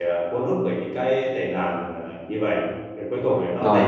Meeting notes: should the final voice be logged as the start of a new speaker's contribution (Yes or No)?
Yes